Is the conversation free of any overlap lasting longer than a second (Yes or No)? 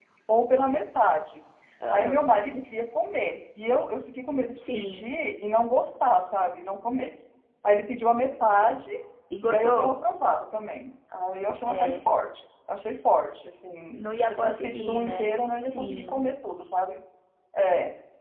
No